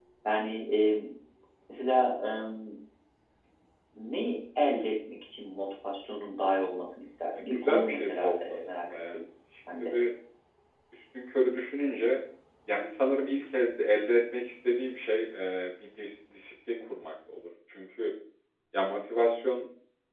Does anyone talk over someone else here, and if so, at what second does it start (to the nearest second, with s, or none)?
7 s